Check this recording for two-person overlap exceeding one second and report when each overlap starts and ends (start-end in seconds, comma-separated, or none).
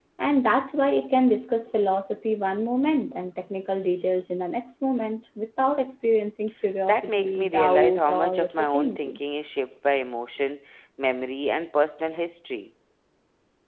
6.9-9.2